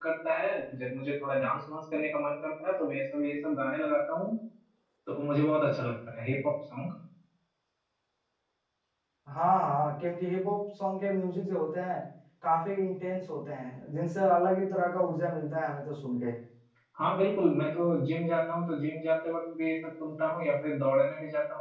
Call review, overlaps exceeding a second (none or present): none